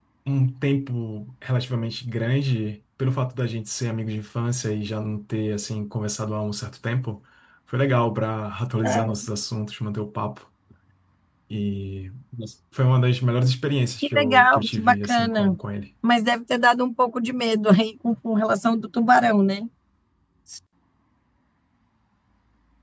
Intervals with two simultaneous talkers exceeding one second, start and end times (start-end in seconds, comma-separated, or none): 14.0-15.6